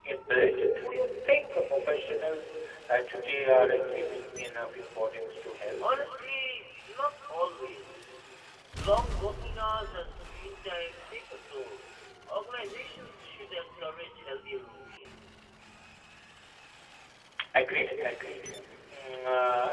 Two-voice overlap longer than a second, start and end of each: none

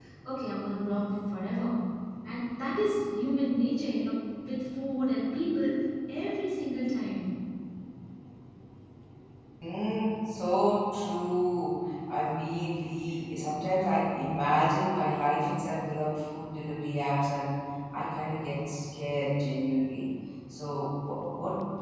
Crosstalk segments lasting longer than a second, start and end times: none

